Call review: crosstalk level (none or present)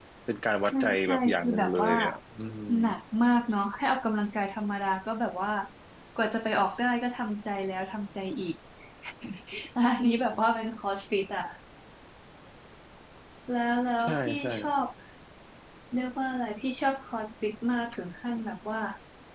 present